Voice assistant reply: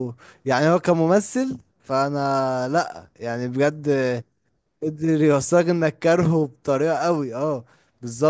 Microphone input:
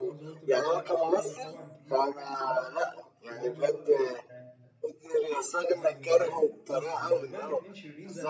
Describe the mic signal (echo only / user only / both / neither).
both